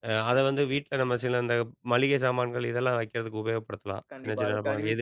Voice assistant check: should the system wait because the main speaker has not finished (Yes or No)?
No